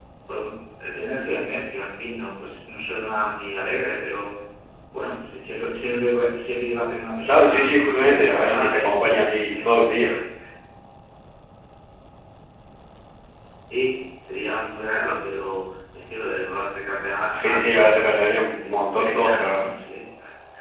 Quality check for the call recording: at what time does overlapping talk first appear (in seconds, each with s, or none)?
7.3 s